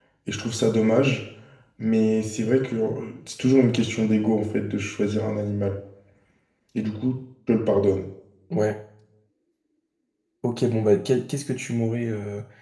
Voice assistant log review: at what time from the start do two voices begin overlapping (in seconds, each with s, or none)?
none